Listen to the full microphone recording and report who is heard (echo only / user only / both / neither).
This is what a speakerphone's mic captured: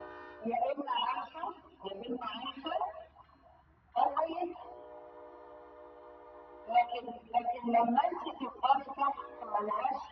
echo only